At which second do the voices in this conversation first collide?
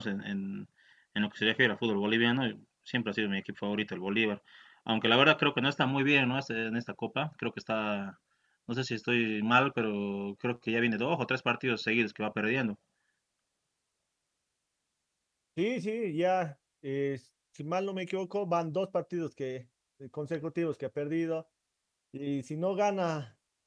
none

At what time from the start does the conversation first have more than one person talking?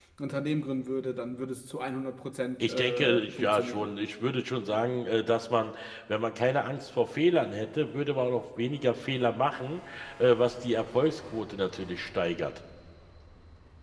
3 s

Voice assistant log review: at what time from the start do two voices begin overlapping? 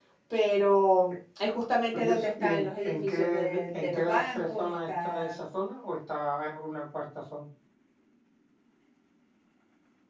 2 s

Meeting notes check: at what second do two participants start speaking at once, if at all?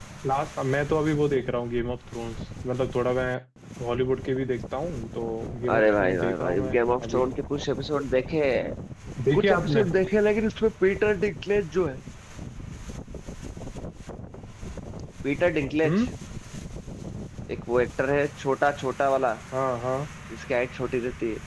6 s

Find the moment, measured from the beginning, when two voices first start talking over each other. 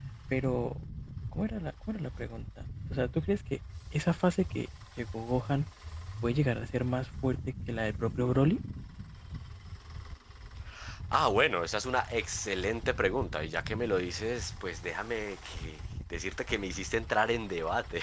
none

